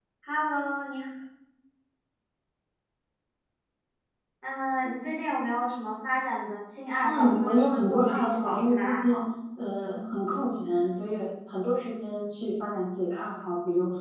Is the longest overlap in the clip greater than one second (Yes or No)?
Yes